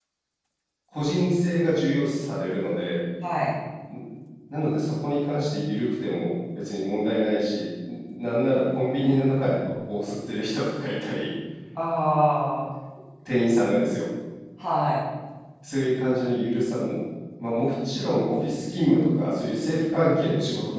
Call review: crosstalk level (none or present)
none